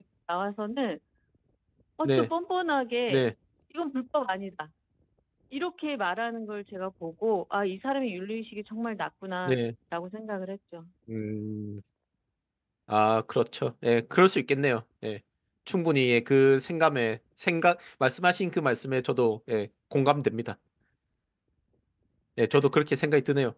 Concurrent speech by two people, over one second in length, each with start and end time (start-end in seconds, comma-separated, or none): none